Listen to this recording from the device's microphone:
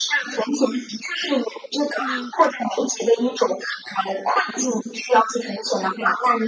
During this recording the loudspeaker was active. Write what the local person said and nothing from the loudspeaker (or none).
嗯，